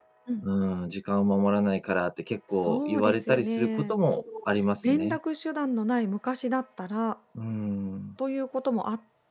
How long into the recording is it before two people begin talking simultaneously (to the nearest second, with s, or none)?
3 s